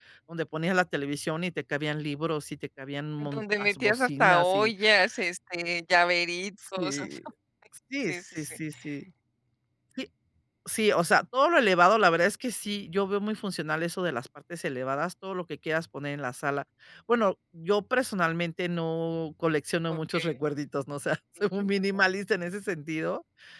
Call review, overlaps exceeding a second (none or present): present